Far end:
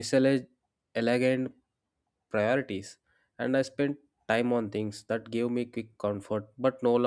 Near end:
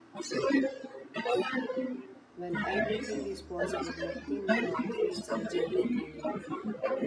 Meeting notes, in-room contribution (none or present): present